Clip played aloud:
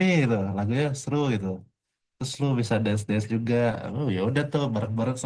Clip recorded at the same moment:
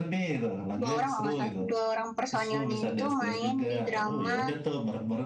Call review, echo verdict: present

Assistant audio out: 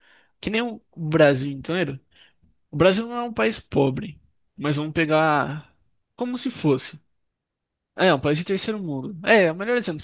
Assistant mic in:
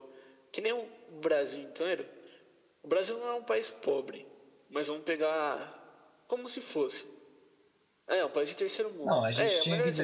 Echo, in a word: present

